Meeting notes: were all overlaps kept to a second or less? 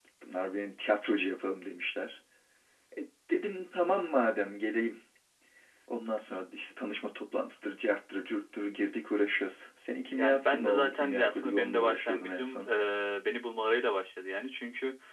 No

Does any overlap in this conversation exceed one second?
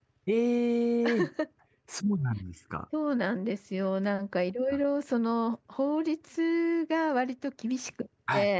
No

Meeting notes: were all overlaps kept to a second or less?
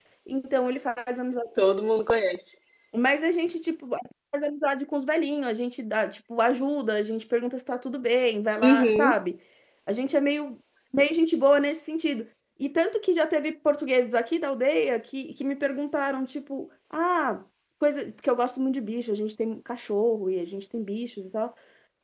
Yes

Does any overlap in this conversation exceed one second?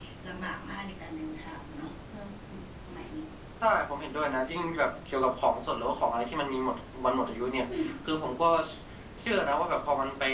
No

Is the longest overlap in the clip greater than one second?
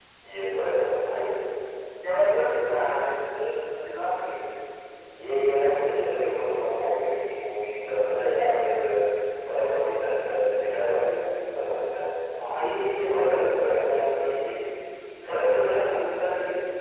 Yes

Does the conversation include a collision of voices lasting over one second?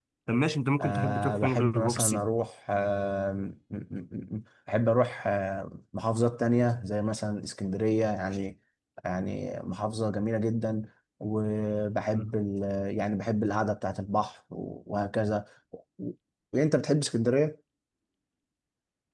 Yes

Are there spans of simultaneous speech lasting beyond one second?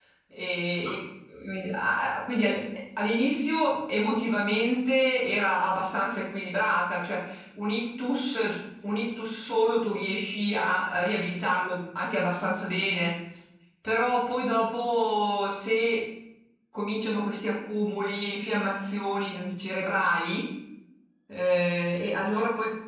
No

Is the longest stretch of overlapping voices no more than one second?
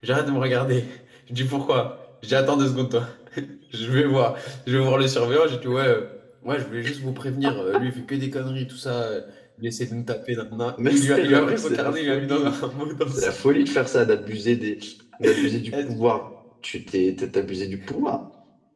No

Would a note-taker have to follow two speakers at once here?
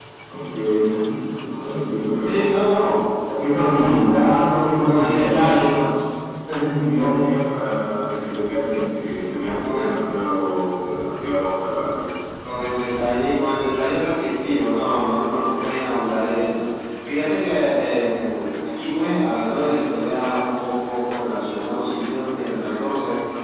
Yes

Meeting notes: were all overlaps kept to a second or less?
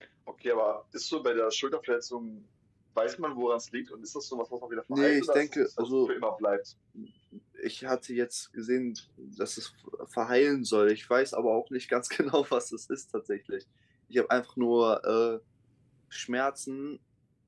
No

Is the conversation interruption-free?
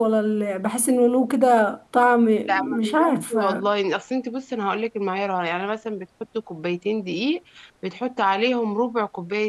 No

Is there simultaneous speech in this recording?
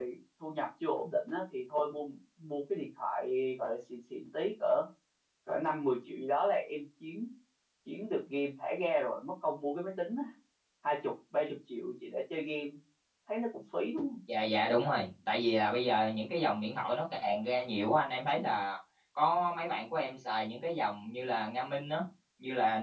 No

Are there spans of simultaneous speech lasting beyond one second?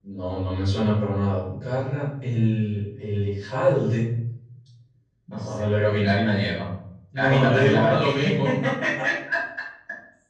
Yes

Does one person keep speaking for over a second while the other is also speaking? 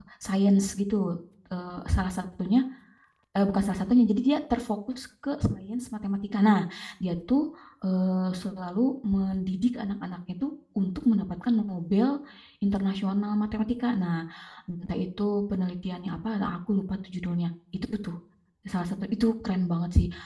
No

